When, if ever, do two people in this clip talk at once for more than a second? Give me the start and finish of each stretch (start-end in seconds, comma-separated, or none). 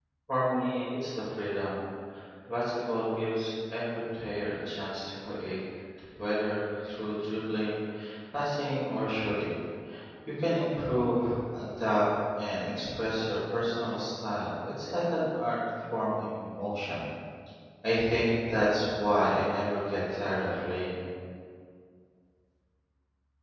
none